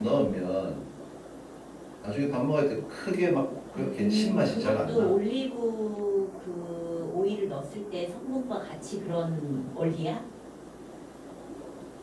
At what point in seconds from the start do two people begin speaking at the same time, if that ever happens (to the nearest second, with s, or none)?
4 s